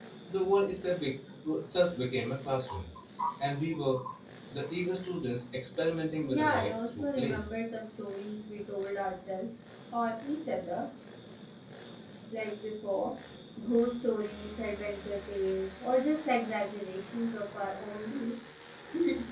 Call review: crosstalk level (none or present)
present